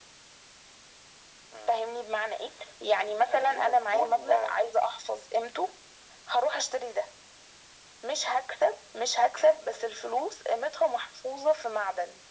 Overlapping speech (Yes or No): Yes